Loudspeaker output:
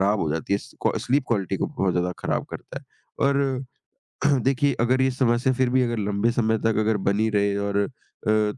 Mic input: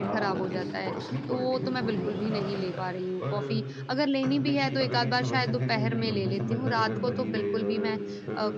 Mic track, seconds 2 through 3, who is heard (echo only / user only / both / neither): both